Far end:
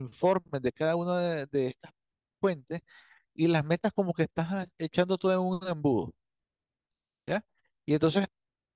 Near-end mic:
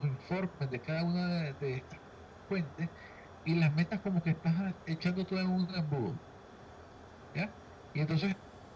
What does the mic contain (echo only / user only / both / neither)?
echo only